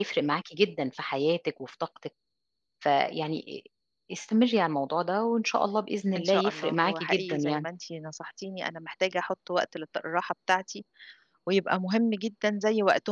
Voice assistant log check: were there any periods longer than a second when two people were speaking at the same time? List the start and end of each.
6.2-7.6

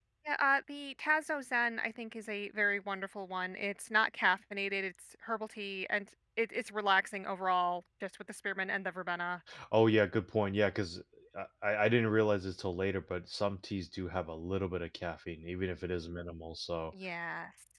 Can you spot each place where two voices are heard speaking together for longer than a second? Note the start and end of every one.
none

